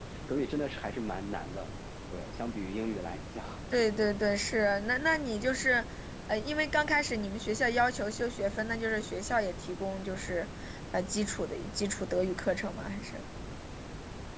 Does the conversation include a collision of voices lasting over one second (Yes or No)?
No